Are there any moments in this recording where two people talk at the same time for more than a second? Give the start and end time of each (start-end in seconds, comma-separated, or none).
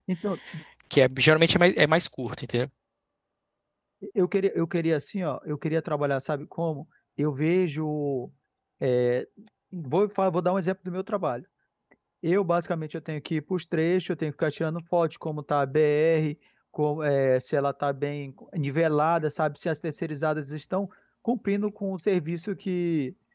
none